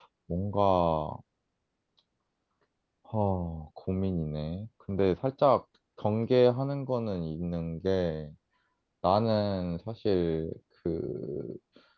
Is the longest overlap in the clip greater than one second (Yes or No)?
No